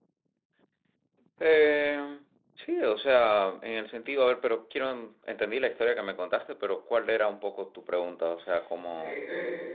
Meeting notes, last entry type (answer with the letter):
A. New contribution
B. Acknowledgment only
A